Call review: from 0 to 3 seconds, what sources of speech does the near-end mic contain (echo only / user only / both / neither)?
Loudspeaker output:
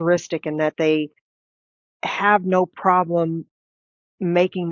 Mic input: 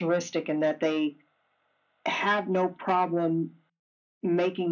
echo only